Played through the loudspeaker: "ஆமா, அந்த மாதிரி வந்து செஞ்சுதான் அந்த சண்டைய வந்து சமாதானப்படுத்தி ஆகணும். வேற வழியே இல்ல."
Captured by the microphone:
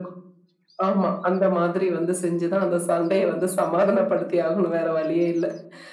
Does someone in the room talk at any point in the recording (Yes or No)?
No